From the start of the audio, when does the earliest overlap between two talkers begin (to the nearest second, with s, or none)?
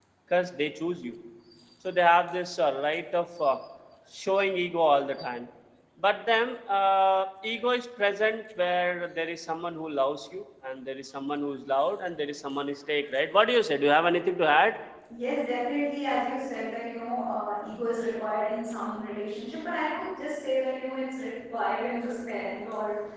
none